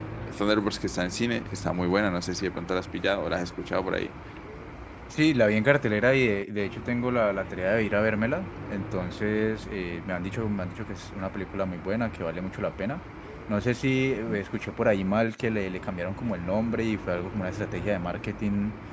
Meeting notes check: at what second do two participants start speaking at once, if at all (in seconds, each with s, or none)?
none